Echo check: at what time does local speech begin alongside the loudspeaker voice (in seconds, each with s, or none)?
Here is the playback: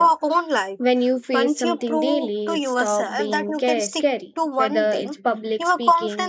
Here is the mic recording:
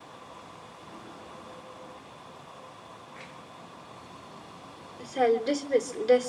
5.0 s